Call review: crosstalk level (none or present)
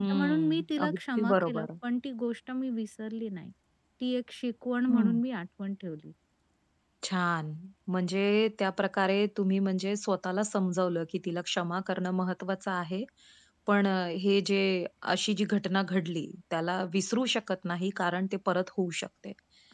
present